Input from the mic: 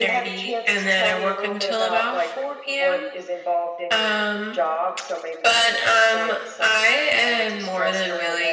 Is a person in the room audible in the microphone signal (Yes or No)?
No